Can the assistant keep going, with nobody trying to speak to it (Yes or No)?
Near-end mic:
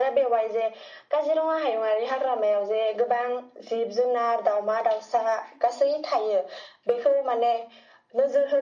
Yes